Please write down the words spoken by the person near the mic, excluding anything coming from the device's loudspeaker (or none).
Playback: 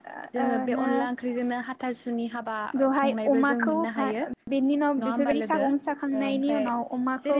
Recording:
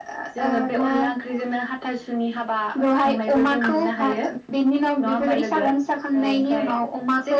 none